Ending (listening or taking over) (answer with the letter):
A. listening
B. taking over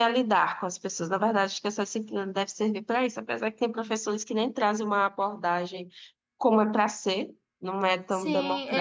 B